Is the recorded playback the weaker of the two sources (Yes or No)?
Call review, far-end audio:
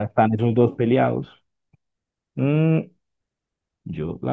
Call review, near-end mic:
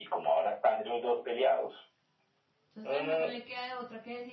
No